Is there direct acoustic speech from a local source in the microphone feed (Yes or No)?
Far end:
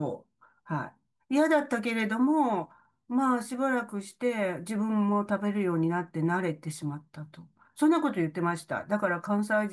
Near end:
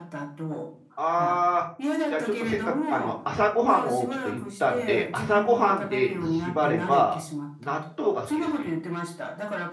Yes